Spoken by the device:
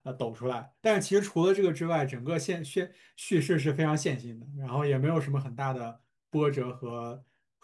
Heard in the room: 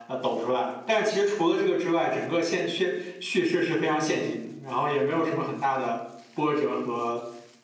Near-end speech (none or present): none